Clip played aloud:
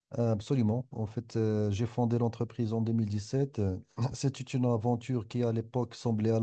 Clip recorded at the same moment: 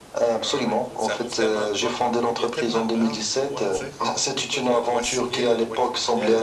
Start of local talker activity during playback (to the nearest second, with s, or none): 0 s